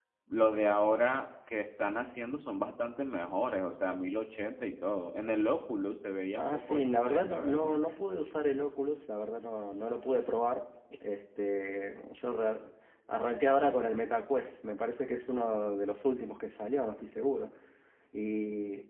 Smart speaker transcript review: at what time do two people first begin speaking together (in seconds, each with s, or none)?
6.4 s